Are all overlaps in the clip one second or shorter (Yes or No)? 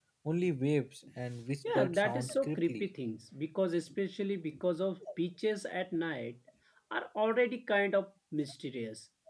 No